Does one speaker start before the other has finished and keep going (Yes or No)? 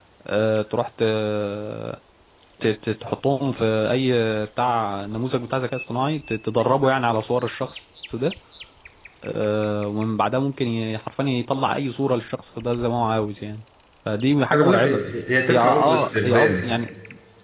Yes